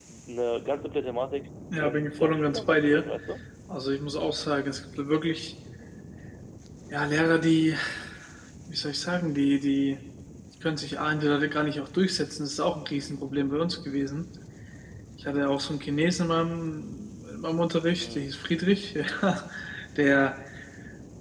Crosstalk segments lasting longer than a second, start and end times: 1.8-3.1

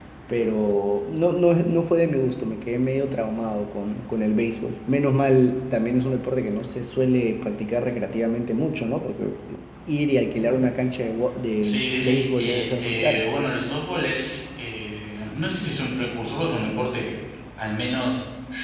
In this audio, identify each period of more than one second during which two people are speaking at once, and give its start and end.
11.6-13.2

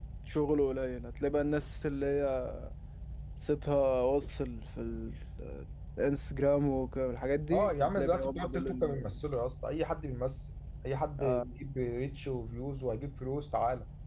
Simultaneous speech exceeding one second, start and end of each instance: 7.5-9.1

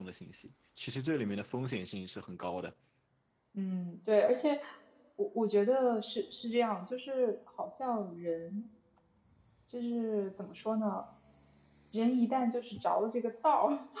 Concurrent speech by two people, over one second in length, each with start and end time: none

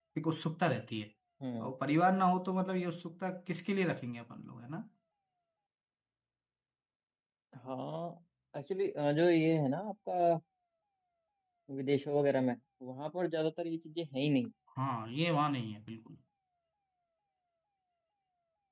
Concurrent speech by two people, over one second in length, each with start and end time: none

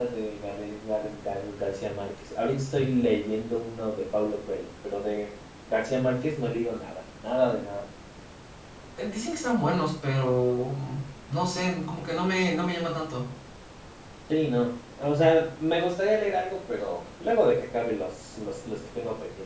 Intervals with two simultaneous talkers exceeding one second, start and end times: none

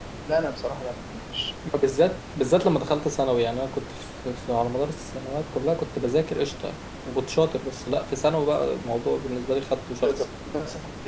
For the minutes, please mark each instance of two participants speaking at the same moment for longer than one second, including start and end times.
none

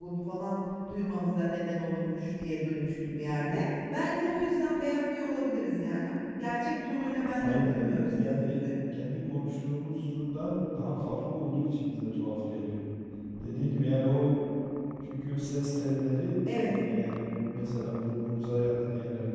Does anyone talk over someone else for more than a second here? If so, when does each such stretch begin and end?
7.4-8.7

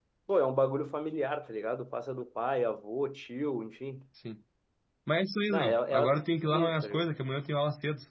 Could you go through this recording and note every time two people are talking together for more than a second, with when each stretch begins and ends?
5.5-7.0

